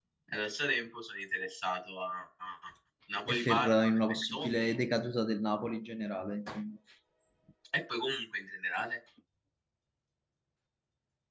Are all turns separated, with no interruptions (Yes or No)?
No